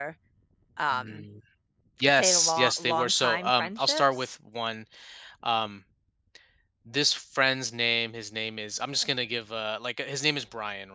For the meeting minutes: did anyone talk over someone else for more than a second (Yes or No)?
Yes